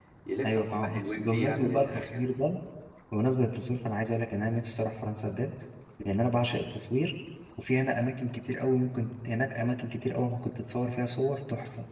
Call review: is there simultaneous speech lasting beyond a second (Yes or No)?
Yes